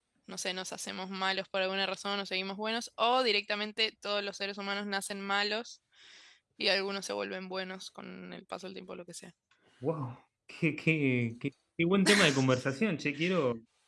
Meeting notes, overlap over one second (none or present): none